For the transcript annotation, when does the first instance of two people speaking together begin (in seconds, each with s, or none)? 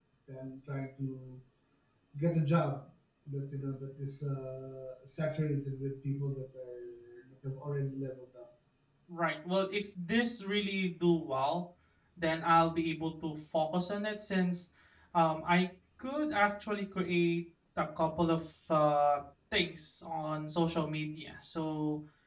none